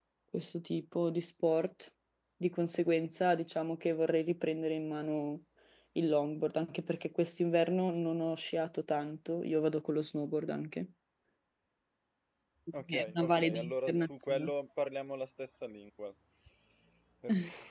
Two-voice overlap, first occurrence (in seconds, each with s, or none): 12.9 s